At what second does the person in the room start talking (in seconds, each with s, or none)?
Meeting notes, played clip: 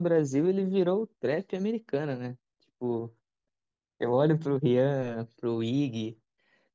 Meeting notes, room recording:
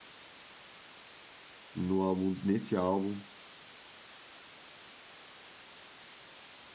1.7 s